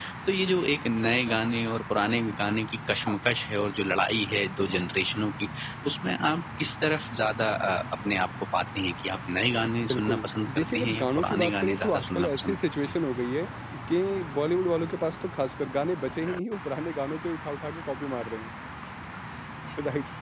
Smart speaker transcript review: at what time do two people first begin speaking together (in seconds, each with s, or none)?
9.9 s